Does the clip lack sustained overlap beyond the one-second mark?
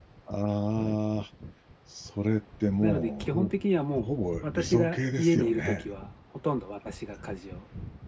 No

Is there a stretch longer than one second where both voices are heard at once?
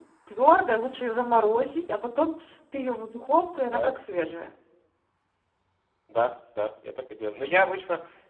No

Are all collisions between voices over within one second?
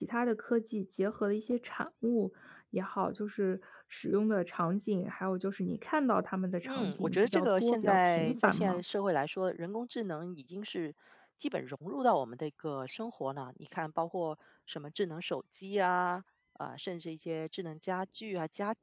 No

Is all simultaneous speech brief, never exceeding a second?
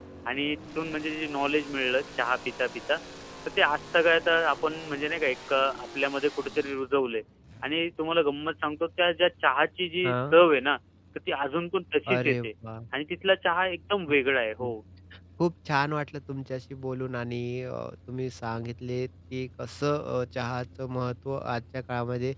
Yes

